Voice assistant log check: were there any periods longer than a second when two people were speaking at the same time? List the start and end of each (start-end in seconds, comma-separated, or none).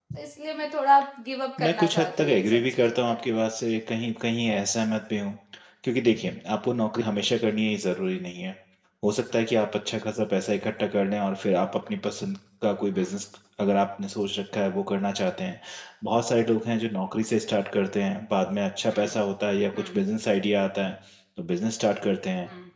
1.6-3.2